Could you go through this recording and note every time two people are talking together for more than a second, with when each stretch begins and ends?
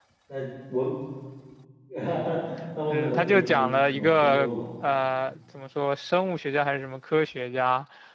2.9-4.5

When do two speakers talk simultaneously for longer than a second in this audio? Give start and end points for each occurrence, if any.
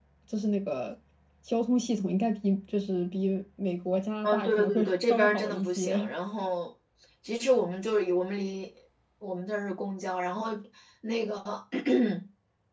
4.2-6.1

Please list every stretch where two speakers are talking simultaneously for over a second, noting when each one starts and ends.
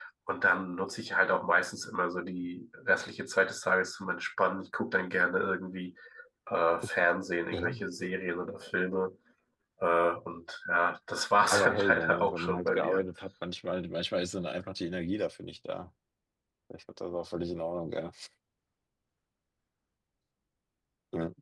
11.5-13.0

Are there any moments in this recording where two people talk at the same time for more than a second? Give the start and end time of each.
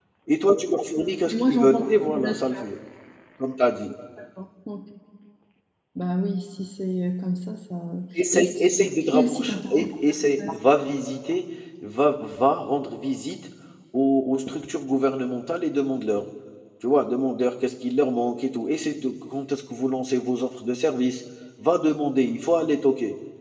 1.3-2.6, 8.3-9.9

